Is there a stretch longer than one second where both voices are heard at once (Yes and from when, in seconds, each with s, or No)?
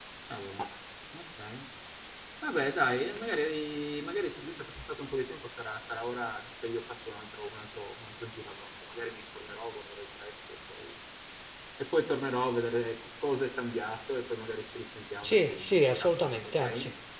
Yes, from 15.2 s